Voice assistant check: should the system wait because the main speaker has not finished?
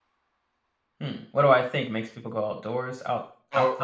No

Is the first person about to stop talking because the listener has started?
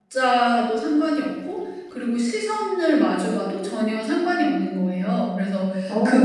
No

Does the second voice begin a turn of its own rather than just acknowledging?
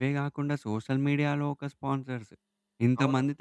No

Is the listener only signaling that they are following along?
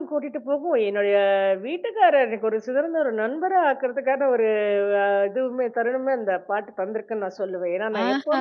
No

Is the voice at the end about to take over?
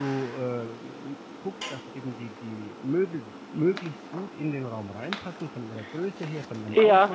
Yes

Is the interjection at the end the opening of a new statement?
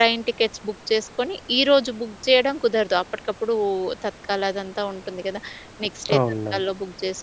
No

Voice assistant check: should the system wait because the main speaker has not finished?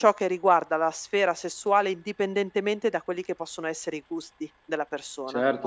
No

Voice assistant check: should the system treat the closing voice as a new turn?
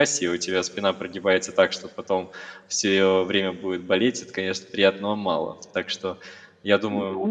No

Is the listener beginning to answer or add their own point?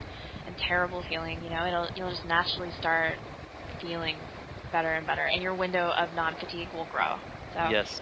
No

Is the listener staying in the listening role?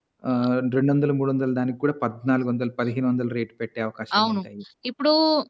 No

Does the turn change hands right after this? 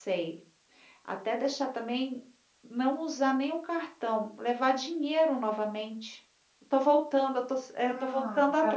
Yes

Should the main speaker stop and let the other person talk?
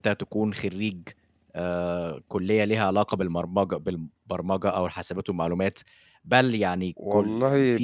No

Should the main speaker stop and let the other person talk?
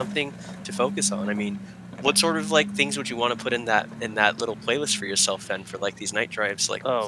Yes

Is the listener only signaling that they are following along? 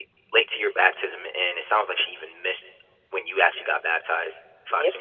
No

